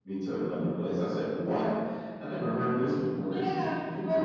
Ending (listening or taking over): taking over